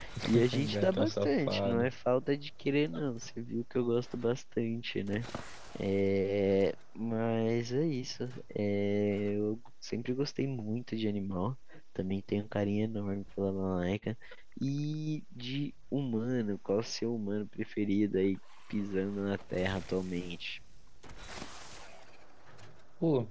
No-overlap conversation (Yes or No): No